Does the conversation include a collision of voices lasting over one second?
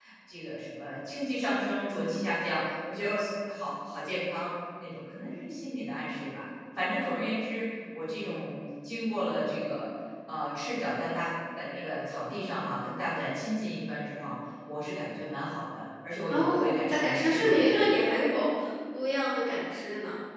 Yes, from 16.3 s

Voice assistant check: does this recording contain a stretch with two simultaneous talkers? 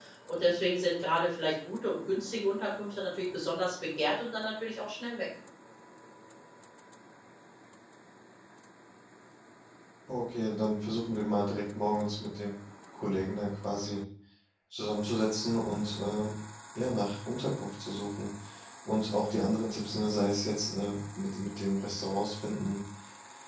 No

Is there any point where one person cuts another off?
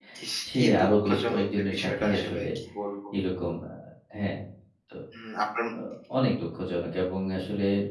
Yes, from 0.5 s

